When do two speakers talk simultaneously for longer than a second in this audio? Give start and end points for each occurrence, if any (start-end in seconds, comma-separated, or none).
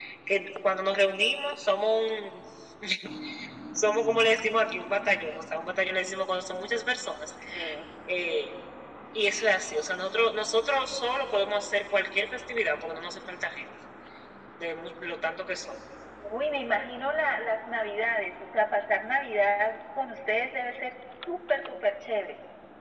none